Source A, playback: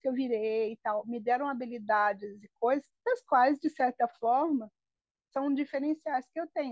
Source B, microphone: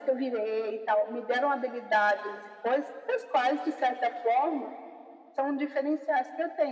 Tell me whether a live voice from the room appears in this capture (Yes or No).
No